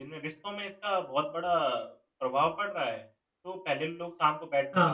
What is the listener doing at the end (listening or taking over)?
listening